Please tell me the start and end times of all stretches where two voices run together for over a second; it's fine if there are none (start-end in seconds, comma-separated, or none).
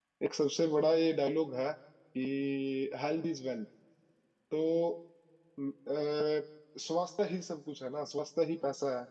none